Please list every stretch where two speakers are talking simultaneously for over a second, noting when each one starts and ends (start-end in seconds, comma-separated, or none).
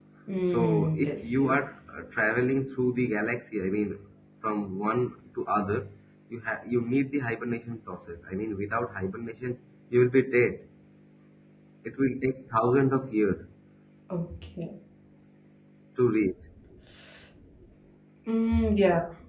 0.5-1.9